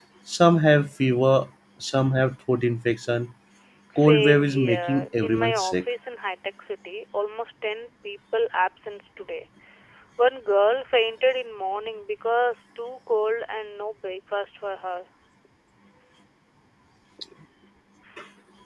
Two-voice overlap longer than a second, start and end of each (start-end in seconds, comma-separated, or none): 4.0-5.8